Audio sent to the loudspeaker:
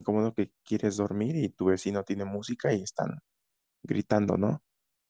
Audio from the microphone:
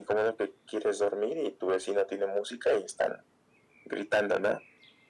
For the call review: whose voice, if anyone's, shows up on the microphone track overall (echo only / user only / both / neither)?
echo only